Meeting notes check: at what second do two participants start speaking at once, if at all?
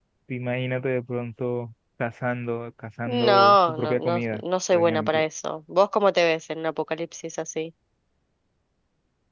3.1 s

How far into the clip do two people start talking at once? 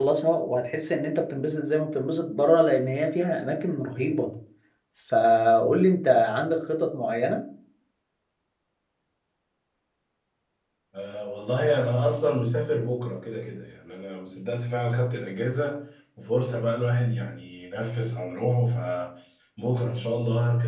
none

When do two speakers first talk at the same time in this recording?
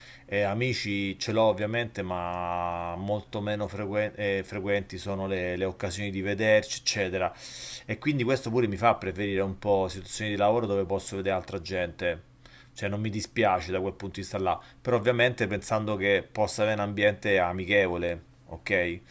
none

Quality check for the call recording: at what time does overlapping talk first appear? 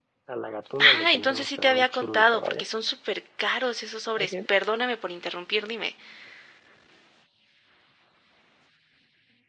0.8 s

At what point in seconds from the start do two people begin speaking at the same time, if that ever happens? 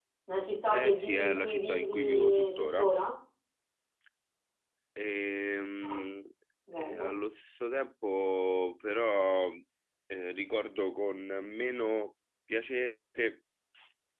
0.7 s

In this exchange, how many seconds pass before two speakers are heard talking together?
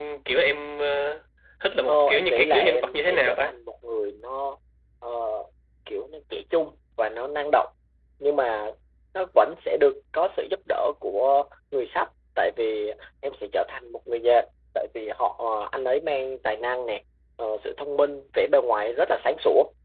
1.9 s

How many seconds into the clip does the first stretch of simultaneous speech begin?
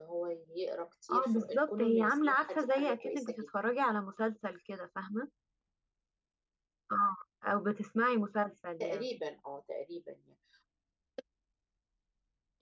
1.1 s

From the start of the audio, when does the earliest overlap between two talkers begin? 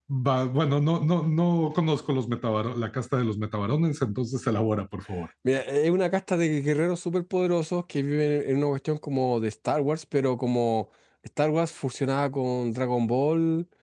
none

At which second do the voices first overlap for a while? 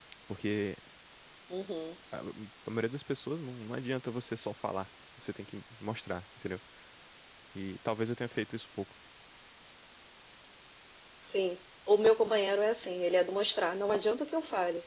none

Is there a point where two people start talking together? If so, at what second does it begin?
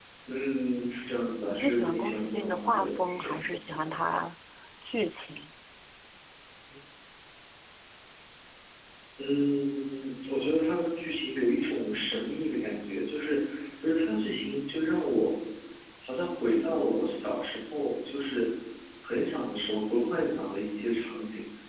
1.5 s

